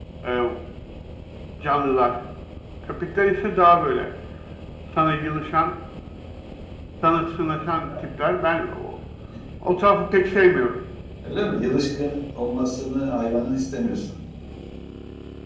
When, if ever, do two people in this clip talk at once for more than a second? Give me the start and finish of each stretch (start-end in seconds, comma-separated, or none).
none